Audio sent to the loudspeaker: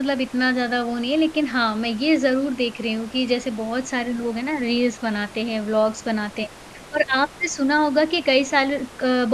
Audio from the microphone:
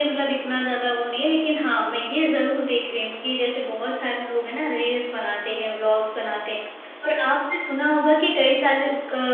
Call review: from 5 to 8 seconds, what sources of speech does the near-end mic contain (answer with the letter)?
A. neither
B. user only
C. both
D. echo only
D